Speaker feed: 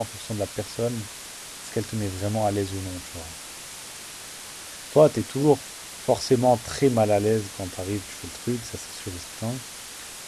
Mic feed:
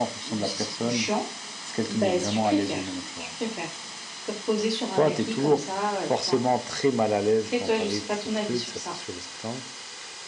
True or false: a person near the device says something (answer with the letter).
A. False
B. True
B